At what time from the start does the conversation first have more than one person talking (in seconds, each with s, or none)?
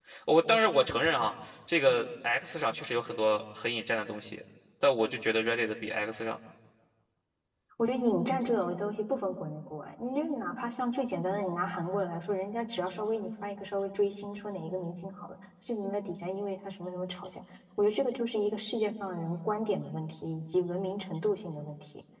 none